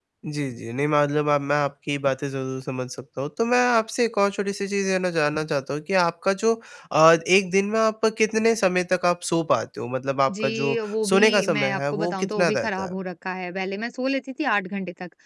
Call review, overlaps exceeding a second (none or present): present